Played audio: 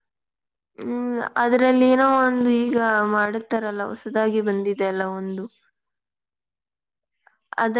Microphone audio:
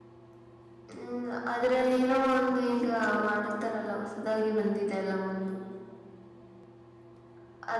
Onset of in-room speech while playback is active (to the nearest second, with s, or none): 2 s